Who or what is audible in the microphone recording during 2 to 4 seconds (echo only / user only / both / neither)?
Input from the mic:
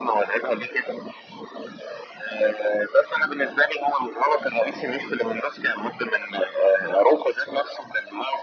echo only